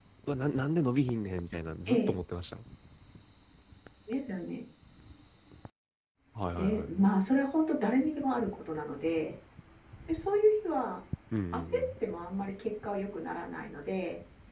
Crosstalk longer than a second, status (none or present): none